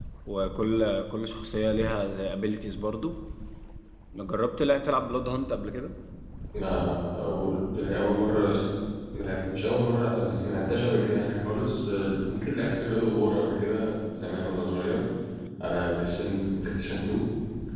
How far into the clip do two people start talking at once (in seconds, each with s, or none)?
none